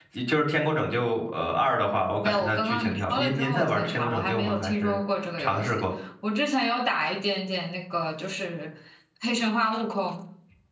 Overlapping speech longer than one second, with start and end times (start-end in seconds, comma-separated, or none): 2.2-5.0